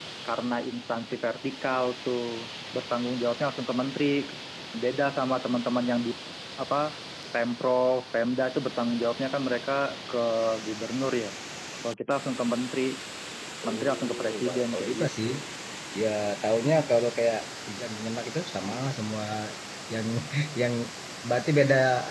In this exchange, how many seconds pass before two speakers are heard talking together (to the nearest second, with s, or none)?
14 s